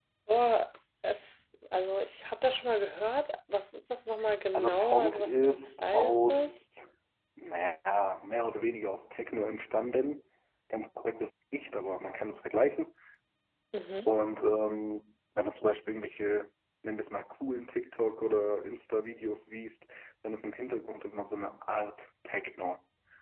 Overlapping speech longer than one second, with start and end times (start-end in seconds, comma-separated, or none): 4.5-6.6